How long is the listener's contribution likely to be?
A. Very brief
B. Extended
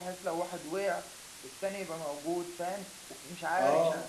B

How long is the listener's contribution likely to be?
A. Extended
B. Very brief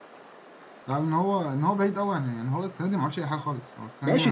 A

